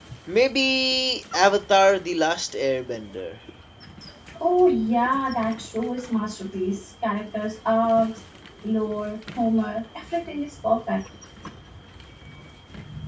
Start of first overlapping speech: none

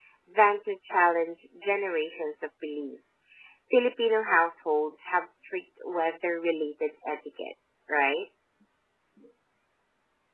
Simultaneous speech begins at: none

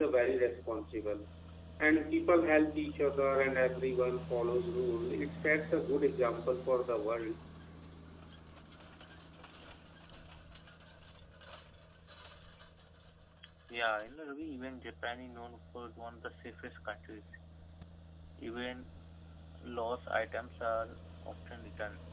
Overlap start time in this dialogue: none

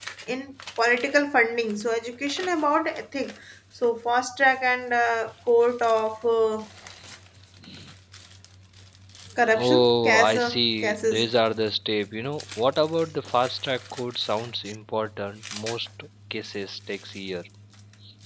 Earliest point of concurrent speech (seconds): 10 s

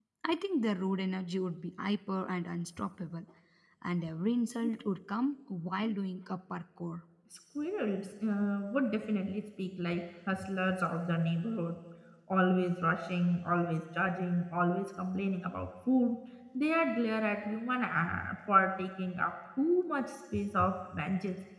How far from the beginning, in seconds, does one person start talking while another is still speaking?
none

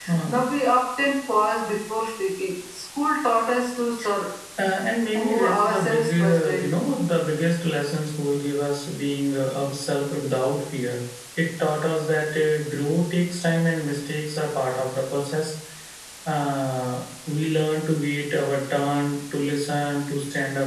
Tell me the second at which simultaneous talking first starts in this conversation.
5 s

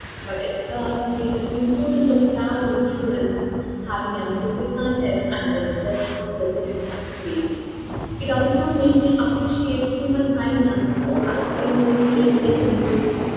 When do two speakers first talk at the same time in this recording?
11 s

